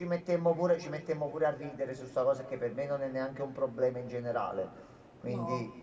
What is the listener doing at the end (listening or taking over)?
listening